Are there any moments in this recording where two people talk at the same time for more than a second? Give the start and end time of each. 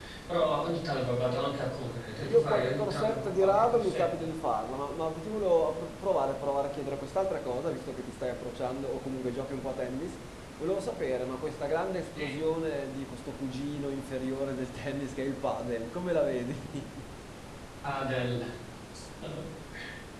2.2-4.3

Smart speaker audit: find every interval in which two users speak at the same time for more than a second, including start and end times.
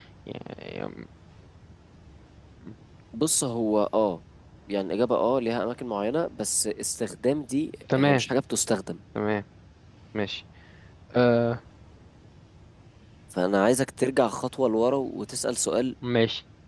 none

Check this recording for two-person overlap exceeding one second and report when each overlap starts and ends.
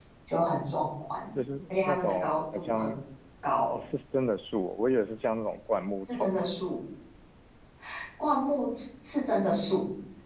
1.7-2.9

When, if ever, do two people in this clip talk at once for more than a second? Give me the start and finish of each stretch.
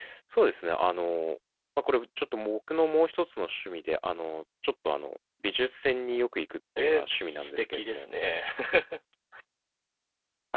6.8-8.1

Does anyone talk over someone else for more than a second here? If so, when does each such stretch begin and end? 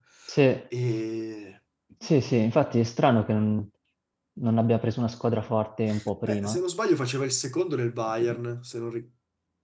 none

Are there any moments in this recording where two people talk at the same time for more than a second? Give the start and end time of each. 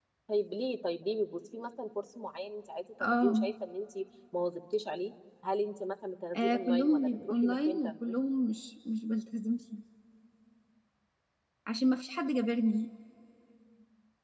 6.3-8.1

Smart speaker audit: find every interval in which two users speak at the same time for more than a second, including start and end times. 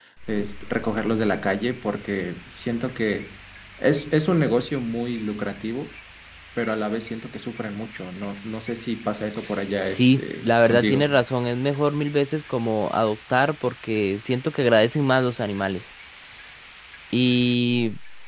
9.8-11.1

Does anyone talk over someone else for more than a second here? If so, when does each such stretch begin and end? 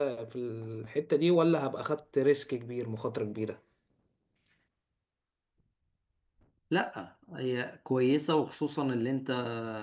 none

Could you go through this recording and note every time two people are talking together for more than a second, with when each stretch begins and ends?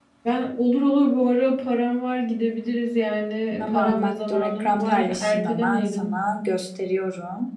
3.6-6.2

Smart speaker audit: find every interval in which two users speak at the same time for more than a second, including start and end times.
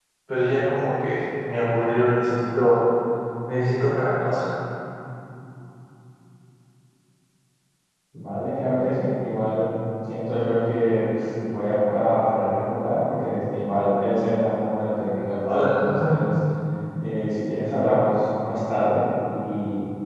none

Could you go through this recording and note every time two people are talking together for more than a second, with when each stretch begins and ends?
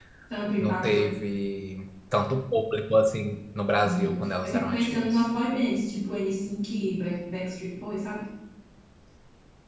3.8-5.2

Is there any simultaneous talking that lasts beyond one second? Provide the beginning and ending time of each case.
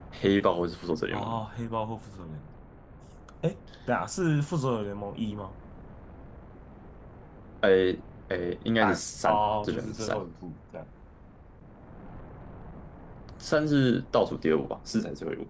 8.8-10.2

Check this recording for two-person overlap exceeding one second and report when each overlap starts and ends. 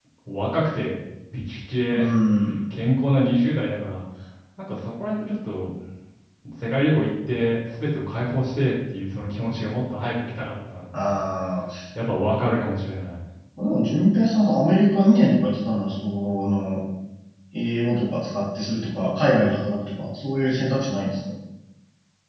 none

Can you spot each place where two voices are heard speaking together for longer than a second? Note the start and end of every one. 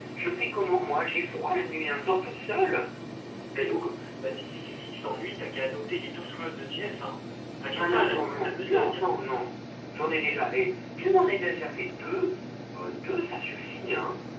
7.8-9.1

